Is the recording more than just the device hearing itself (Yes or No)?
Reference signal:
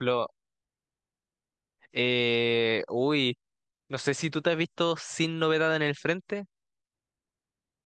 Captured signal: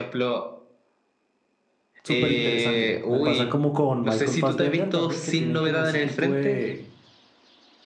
Yes